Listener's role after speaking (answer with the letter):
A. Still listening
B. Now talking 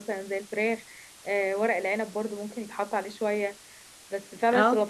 A